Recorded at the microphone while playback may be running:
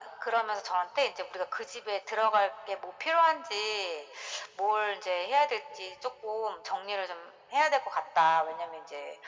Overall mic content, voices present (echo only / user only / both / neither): echo only